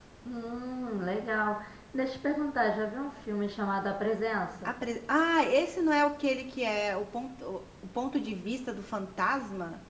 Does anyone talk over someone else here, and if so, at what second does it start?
none

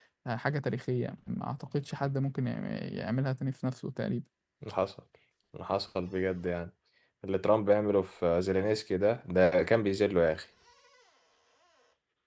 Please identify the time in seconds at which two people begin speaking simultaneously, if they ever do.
none

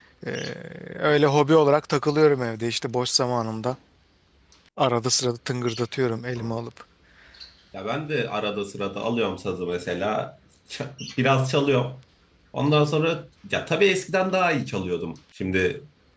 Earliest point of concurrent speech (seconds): none

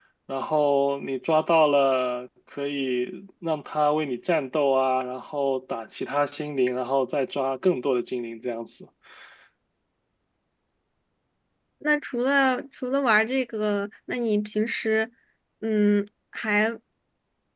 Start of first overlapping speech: none

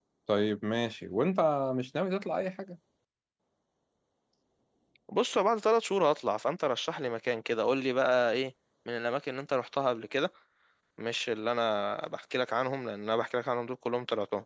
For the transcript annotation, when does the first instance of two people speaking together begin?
none

